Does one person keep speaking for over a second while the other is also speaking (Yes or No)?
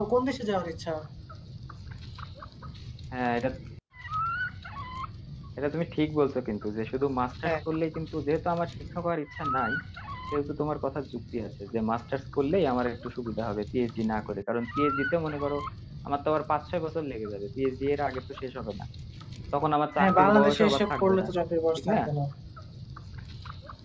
Yes